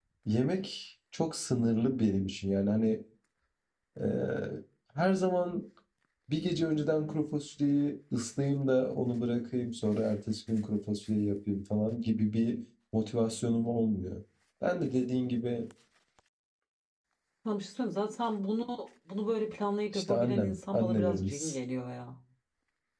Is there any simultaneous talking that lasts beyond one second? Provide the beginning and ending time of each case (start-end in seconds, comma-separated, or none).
19.9-21.6